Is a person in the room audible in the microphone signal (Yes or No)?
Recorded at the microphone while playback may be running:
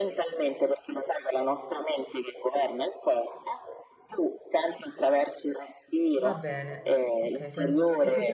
Yes